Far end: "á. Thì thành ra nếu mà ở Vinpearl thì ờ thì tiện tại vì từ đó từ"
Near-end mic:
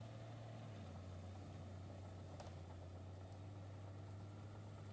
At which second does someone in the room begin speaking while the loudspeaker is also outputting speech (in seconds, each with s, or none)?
none